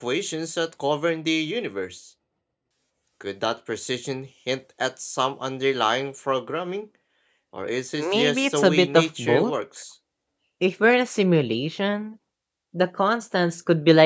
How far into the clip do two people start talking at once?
8.0 s

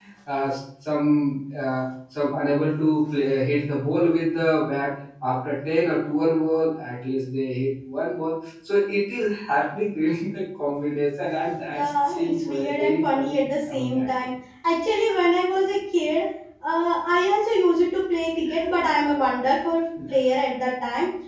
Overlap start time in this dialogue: 11.7 s

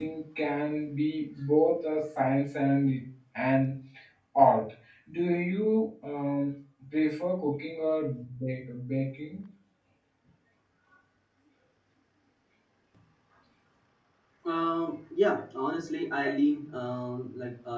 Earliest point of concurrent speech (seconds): none

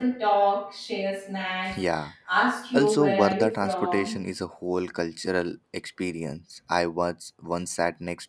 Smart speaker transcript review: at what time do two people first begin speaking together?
2.7 s

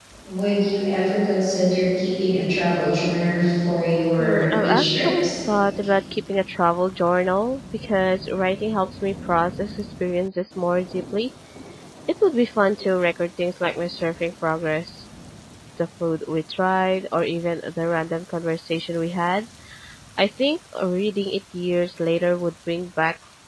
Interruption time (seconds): 4.2 s

